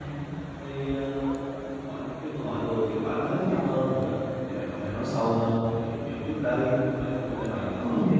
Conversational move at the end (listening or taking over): listening